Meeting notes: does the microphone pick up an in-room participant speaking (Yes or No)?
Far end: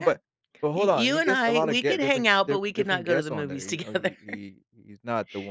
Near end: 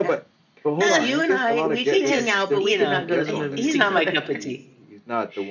Yes